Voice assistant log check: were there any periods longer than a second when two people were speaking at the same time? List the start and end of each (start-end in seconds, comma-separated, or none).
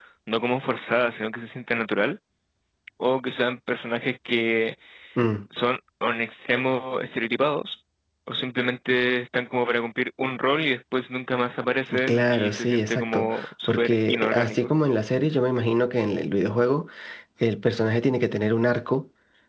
12.1-14.7